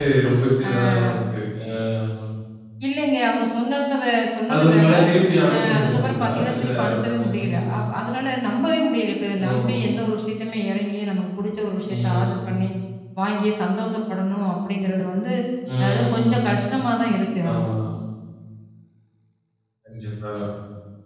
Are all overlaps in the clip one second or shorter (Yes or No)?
No